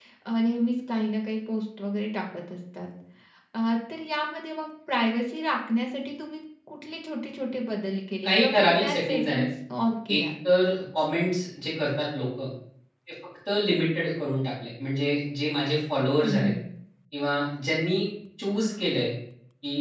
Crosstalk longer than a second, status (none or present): present